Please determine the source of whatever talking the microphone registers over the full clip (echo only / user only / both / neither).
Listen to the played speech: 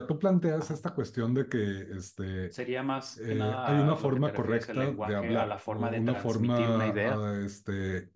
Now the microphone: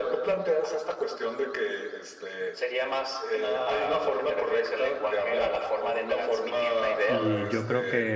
both